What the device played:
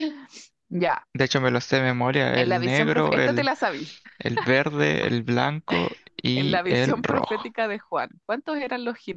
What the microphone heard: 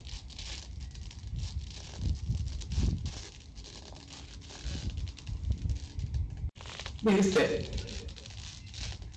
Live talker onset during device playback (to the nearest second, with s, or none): 7 s